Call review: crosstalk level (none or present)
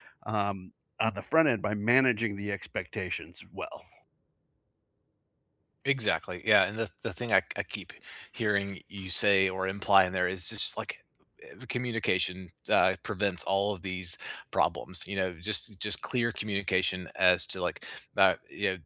none